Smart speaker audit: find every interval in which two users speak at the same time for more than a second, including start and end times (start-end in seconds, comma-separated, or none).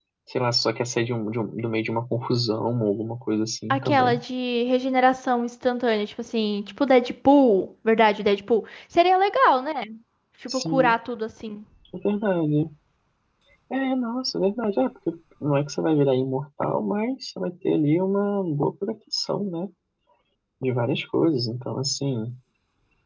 none